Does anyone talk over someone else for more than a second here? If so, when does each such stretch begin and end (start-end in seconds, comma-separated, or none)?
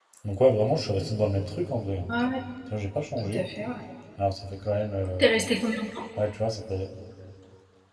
none